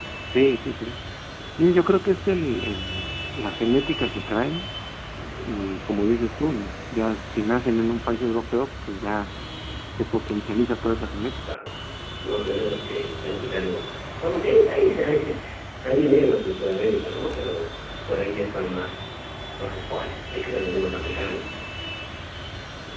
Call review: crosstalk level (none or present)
none